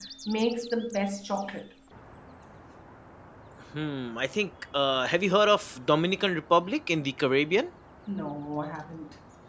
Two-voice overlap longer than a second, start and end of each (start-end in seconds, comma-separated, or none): none